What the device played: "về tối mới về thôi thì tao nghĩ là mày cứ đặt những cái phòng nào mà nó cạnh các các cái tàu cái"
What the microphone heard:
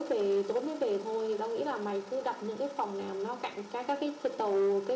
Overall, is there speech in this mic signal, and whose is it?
echo only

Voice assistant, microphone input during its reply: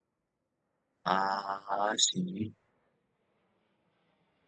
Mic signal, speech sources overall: user only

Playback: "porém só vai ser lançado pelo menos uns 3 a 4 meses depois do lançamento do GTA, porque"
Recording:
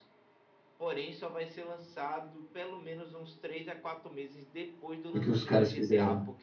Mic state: both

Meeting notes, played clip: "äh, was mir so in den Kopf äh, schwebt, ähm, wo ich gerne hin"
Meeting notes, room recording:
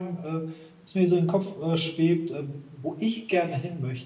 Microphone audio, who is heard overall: echo only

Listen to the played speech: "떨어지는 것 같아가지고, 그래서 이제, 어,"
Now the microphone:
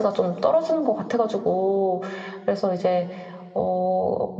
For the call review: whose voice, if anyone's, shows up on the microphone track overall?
echo only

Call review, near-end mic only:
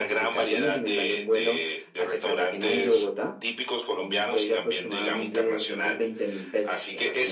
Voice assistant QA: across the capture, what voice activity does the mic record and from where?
echo only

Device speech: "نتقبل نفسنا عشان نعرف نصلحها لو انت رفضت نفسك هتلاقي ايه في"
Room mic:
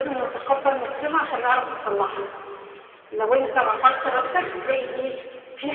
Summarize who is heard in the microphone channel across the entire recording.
both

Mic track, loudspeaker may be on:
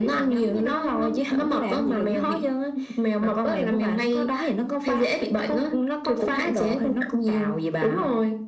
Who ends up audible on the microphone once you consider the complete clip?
echo only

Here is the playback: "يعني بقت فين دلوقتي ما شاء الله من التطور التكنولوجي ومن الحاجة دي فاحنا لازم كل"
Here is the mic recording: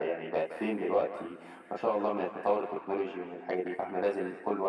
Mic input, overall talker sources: echo only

